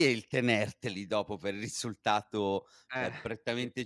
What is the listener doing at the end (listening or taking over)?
listening